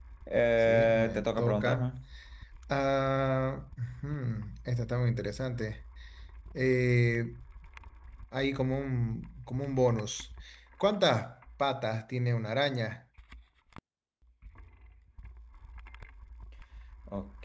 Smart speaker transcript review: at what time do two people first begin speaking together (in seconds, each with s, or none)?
0.6 s